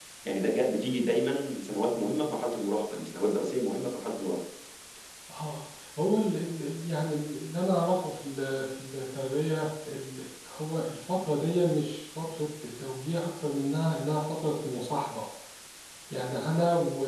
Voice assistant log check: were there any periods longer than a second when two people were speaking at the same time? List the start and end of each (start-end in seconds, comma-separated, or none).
none